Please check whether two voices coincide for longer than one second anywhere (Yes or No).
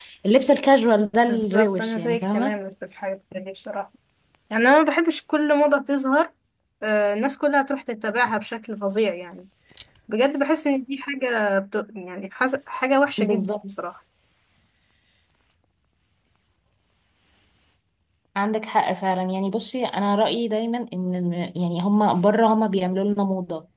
Yes